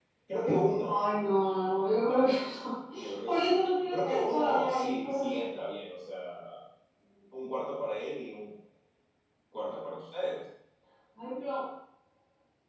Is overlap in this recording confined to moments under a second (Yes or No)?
No